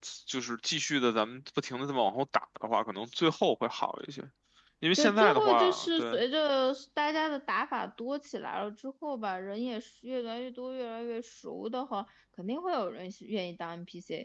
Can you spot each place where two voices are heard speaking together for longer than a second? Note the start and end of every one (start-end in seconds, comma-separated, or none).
5.0-6.2